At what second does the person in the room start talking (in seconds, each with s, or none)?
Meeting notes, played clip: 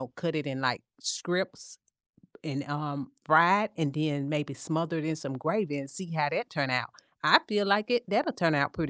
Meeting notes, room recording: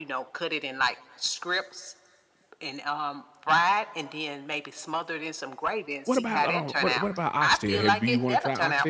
6.0 s